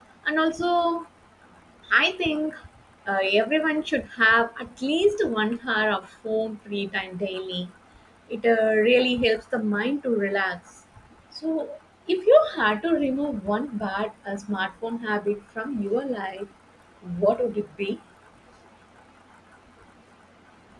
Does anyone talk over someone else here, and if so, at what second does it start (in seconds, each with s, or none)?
none